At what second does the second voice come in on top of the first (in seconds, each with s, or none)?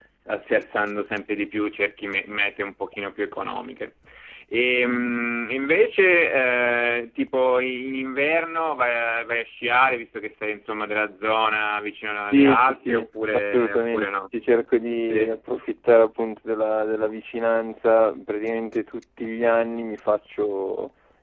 12.3 s